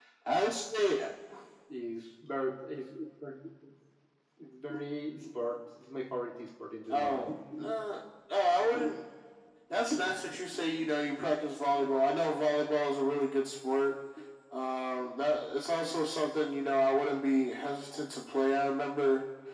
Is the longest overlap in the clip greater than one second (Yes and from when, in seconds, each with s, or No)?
No